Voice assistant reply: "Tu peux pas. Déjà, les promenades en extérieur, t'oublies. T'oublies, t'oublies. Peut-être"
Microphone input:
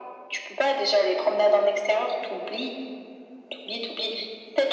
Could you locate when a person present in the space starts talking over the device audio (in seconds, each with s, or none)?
none